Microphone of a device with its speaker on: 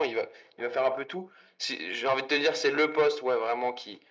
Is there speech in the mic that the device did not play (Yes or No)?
No